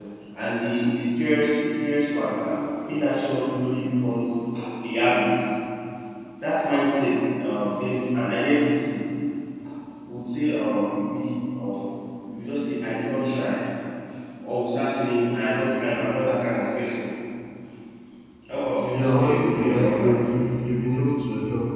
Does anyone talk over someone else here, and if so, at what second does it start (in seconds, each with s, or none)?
18.9 s